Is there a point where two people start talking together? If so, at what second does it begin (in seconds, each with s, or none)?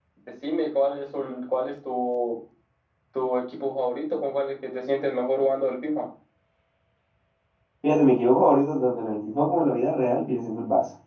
none